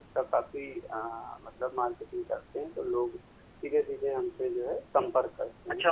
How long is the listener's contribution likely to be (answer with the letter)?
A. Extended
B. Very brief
A